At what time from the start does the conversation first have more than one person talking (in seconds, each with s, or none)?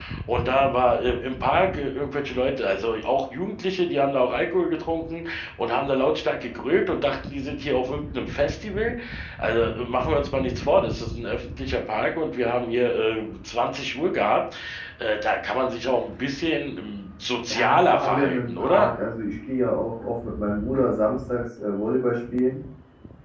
17.5 s